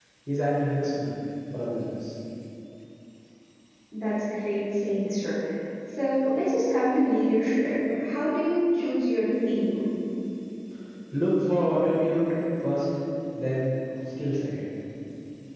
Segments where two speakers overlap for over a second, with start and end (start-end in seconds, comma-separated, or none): none